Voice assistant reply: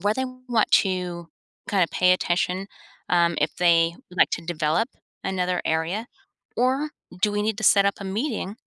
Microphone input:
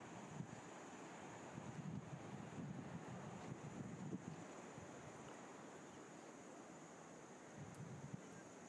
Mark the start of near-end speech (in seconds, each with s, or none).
none